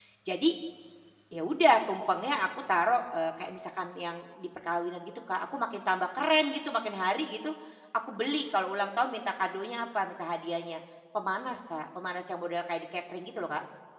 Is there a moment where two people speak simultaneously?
No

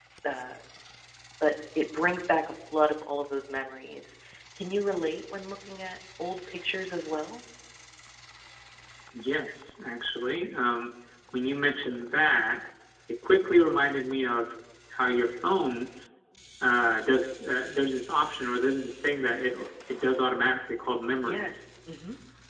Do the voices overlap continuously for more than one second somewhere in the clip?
No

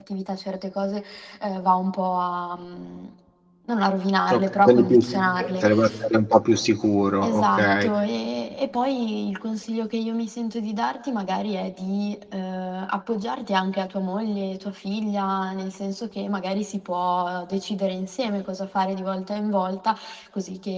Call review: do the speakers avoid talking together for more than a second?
No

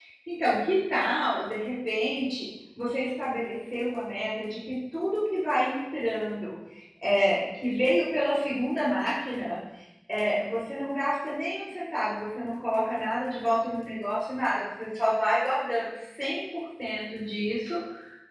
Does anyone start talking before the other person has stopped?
No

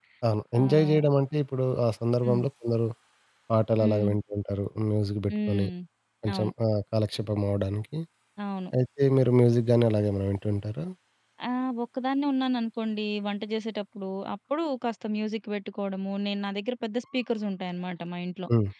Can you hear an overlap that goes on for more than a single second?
No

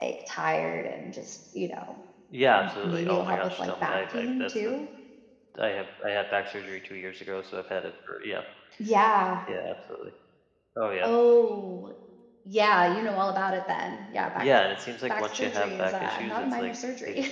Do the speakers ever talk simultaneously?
Yes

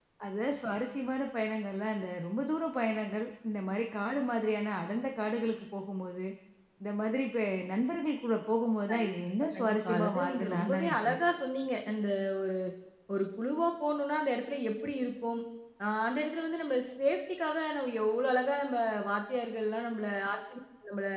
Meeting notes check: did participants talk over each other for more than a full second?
Yes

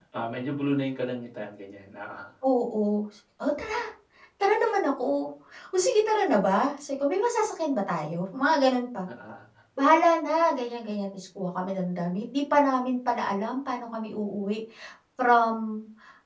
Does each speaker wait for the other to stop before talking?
Yes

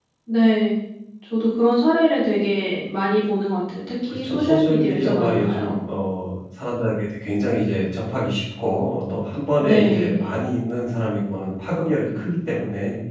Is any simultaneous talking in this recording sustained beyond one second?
Yes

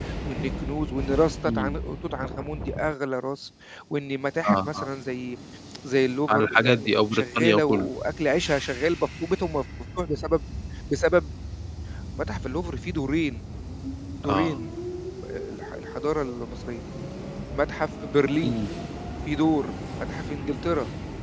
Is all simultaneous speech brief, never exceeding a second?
No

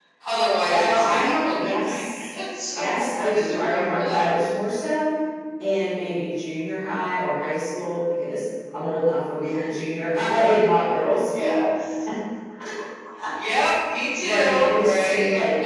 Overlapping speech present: Yes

